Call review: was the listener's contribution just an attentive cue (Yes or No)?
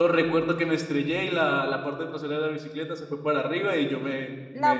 No